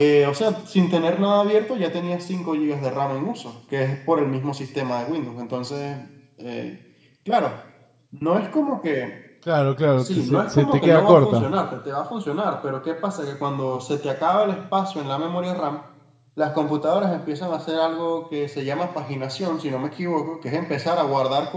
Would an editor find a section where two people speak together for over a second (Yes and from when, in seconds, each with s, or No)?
Yes, from 10.0 s